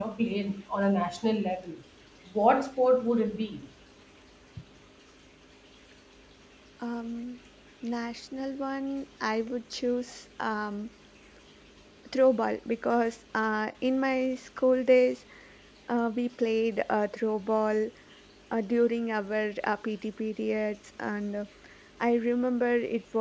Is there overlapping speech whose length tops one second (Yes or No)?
No